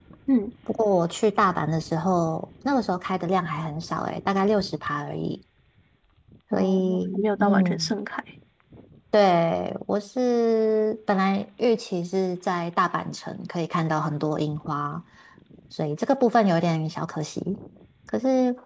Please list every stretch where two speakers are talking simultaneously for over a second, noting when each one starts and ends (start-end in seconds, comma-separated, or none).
6.5-7.9